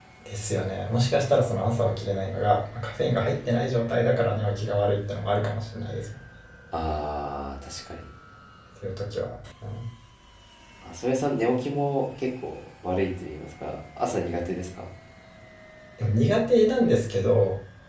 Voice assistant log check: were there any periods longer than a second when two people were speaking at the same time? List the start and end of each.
none

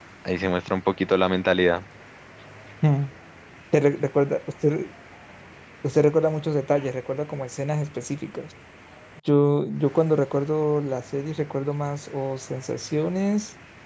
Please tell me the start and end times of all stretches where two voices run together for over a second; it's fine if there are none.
none

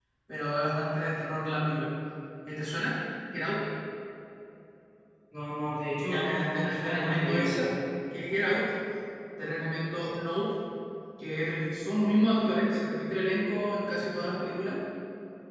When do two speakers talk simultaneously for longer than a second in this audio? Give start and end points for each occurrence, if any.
6.1-7.6

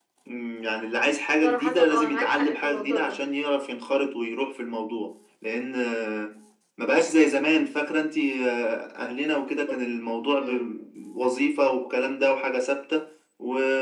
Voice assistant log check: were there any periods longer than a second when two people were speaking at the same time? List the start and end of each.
1.4-3.2

